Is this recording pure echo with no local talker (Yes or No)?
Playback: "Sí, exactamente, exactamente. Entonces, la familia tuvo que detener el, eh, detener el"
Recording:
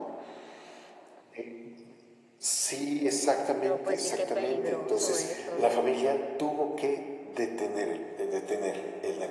No